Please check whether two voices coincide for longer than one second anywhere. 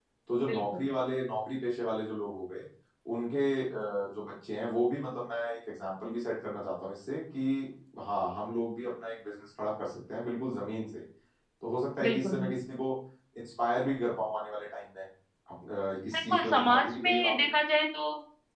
Yes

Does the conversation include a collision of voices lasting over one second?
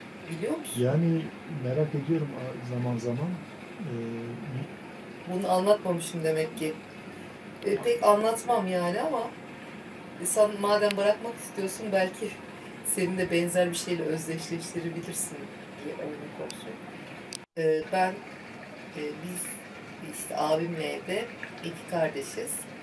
No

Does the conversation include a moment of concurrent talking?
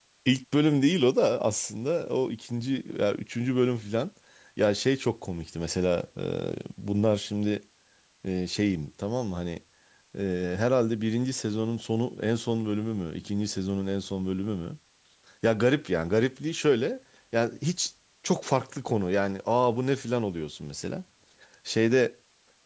No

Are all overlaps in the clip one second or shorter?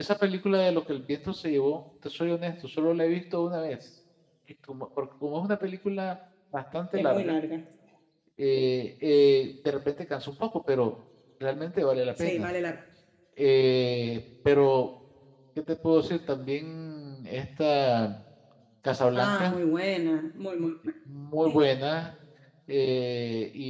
Yes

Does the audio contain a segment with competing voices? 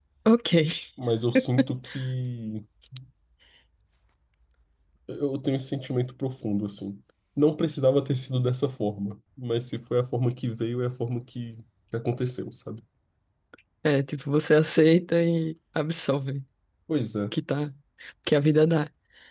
No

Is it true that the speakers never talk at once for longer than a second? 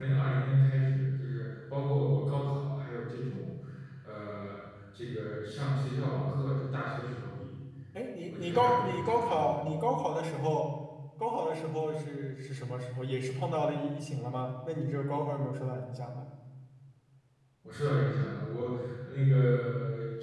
No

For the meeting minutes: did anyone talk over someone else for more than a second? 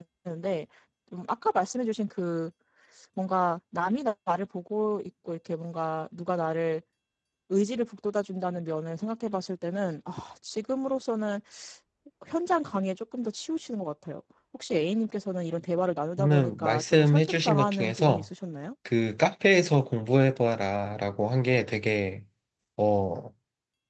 Yes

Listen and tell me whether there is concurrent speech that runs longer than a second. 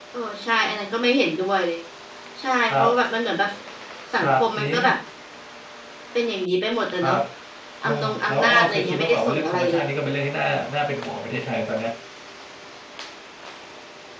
Yes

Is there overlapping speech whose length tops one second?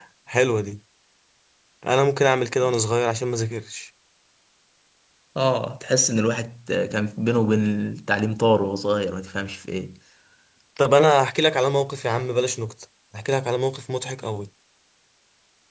No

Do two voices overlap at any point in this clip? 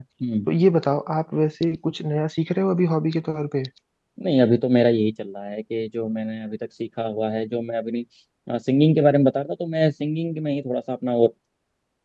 No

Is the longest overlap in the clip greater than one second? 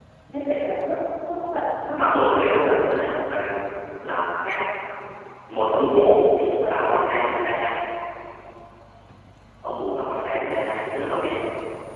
Yes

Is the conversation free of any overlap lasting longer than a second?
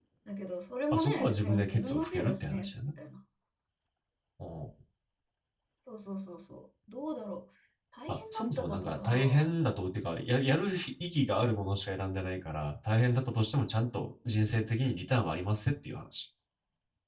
No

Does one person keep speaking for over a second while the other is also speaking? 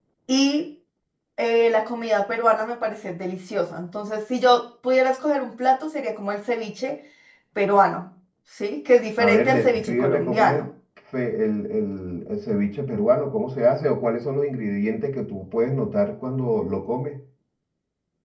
Yes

